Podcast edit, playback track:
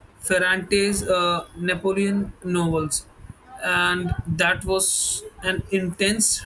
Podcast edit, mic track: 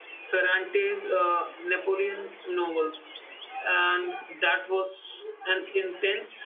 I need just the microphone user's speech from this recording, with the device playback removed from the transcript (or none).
none